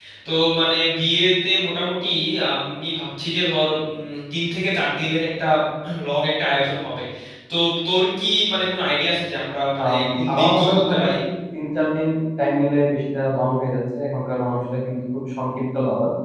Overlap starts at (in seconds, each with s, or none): 9.8 s